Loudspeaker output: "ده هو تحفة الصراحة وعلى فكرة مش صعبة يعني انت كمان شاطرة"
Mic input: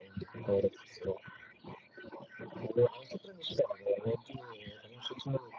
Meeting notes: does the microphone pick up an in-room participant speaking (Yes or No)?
No